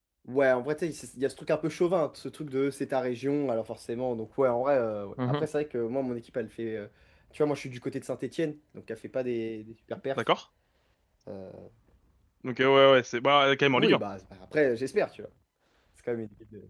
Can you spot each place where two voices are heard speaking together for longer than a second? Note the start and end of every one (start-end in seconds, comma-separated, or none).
none